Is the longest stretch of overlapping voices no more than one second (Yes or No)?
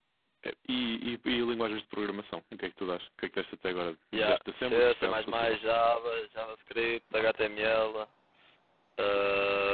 No